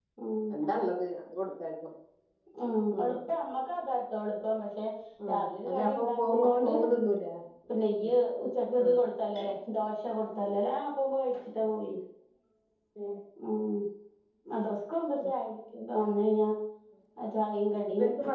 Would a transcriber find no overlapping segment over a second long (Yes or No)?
No